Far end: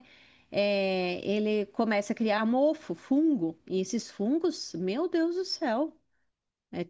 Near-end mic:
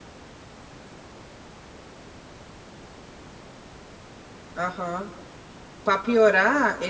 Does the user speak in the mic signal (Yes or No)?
Yes